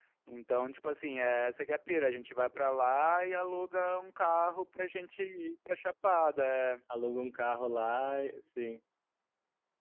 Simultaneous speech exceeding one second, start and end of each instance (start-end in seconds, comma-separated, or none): none